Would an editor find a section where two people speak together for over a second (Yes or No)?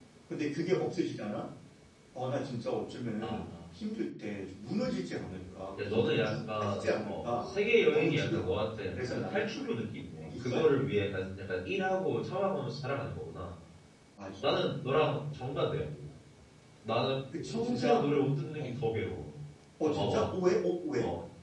Yes